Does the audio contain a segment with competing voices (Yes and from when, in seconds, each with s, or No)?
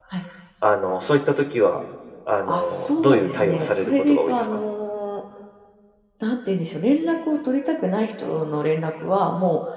Yes, from 2.5 s